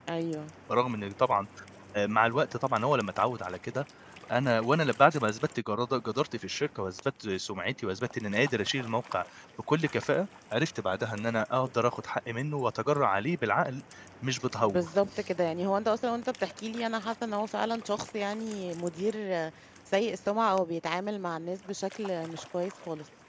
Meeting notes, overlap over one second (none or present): none